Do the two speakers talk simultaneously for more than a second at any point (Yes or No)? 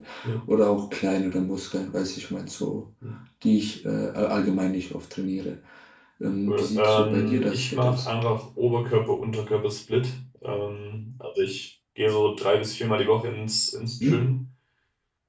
Yes